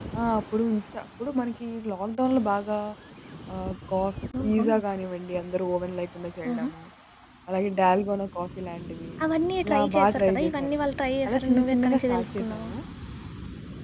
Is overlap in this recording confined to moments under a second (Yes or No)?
No